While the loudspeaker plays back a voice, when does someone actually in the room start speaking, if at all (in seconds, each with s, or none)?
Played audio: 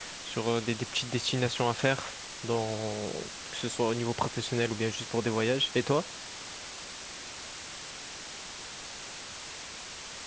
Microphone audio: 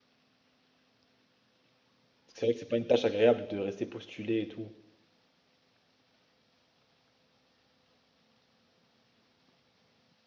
2.3 s